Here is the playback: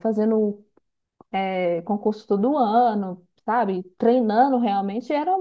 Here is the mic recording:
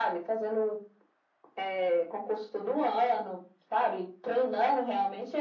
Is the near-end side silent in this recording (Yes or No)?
Yes